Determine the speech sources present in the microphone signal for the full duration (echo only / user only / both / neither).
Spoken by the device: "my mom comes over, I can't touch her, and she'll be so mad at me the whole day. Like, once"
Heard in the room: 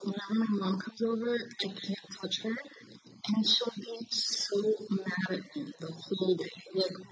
echo only